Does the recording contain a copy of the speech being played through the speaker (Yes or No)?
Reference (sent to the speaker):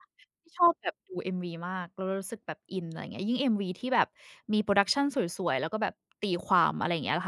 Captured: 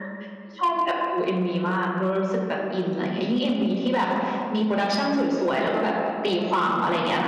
Yes